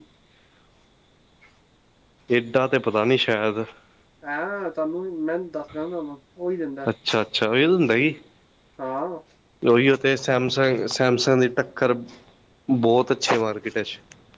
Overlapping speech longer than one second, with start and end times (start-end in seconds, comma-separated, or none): none